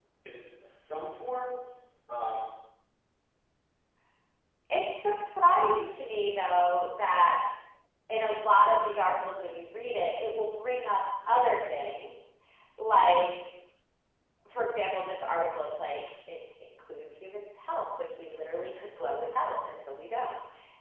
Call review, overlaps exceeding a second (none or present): none